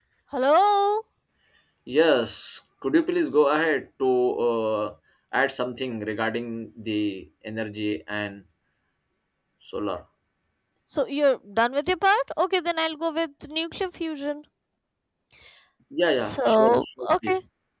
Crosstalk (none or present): present